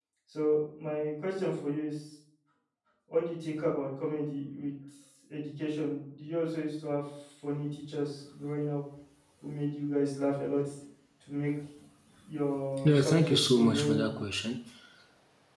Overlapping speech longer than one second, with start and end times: 12.8-14.1

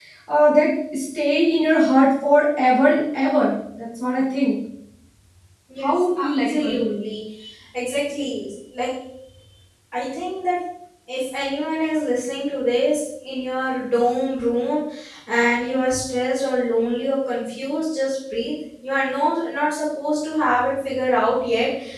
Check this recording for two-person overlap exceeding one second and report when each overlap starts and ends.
5.8-7.0

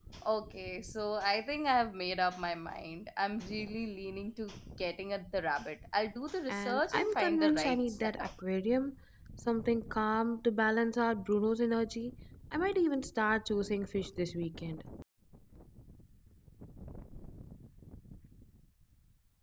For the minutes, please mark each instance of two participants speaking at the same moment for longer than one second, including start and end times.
6.5-8.3

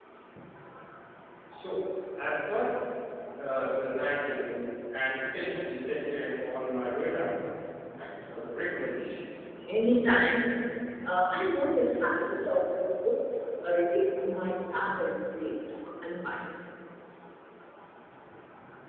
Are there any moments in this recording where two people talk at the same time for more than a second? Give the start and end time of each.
none

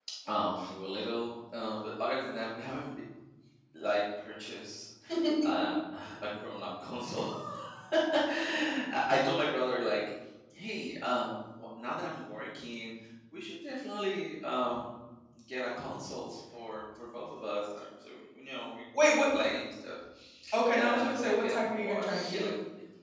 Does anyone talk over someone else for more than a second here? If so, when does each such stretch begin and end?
20.7-22.4

